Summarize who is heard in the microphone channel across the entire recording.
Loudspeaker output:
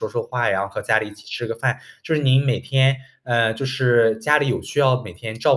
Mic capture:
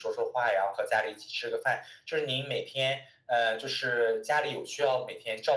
echo only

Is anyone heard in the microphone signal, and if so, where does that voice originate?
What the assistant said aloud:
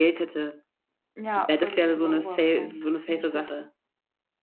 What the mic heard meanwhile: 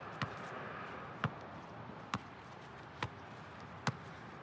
neither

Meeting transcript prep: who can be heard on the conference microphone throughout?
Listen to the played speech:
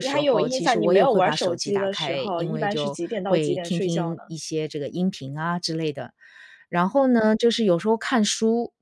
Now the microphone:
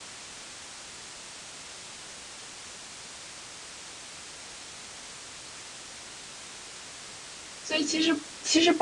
user only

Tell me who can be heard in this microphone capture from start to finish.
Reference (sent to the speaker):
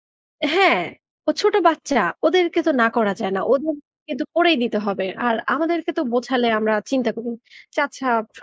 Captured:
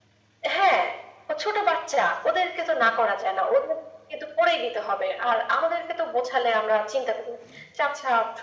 echo only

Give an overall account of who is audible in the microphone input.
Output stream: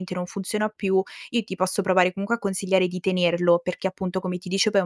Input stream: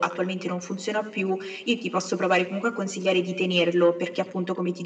echo only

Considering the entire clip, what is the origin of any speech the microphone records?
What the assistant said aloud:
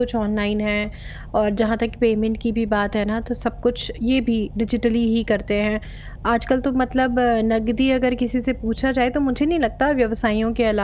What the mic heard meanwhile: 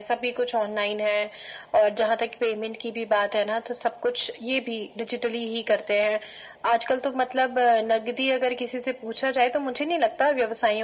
echo only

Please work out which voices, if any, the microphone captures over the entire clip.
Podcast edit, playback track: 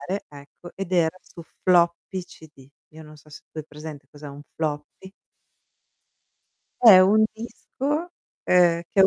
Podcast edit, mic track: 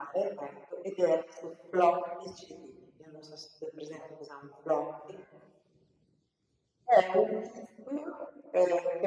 echo only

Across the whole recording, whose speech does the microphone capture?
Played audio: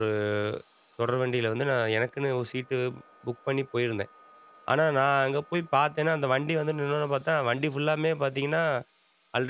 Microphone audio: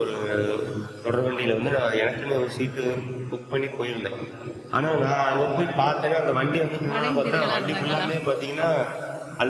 both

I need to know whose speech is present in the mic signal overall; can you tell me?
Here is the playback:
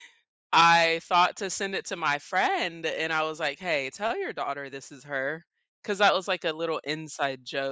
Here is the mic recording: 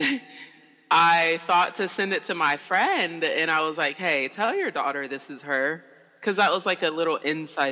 echo only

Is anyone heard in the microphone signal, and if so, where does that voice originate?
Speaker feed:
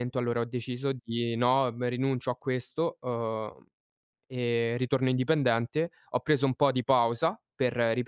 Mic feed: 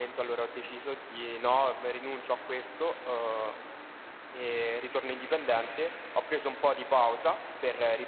echo only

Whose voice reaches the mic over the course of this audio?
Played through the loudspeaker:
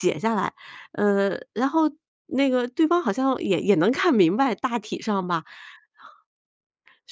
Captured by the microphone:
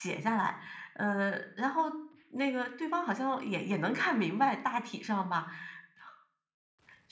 echo only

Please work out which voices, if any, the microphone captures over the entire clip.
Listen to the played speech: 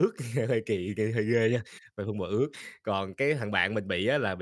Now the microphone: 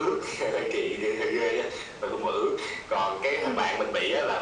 both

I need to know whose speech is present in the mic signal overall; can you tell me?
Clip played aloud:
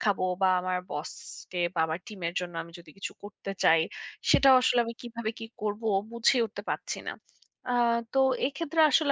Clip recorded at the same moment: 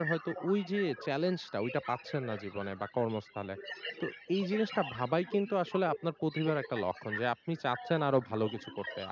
both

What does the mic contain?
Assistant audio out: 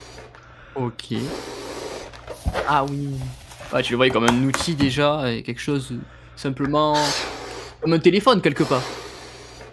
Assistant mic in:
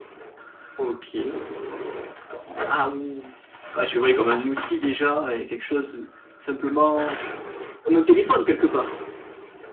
echo only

